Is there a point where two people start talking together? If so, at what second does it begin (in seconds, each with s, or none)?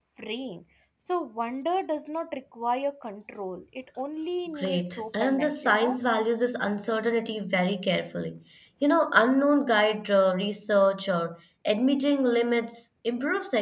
4.5 s